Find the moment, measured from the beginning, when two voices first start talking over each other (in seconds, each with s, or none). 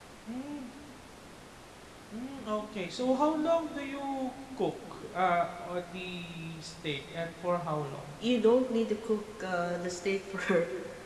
none